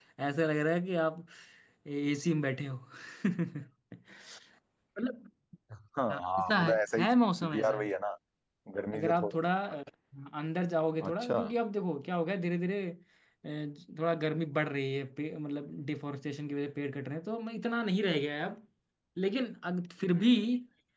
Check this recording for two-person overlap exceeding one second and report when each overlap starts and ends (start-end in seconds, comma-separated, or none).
6.1-7.8